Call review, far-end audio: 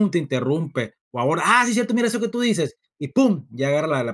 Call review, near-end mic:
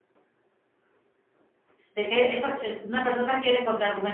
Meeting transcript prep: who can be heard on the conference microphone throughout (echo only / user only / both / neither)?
user only